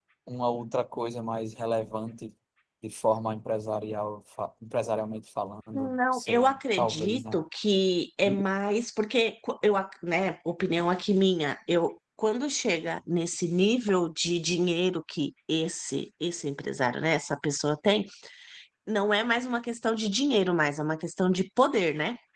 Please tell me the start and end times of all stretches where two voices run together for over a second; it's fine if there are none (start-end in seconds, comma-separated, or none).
5.7-7.4